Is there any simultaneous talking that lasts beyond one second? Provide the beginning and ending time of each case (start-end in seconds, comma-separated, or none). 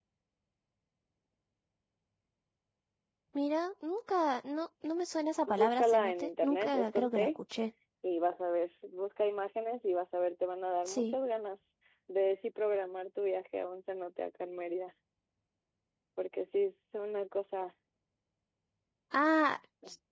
5.5-7.4